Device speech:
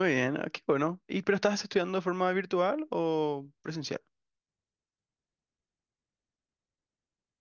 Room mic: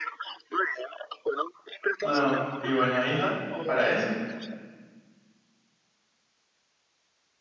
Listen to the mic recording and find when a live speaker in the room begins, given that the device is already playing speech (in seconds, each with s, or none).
2.0 s